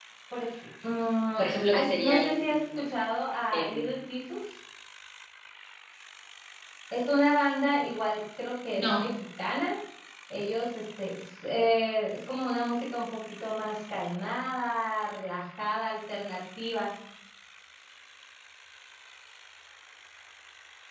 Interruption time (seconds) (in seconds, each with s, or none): 1.4 s